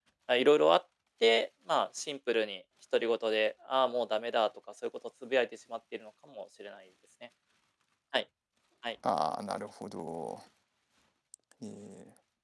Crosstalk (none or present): none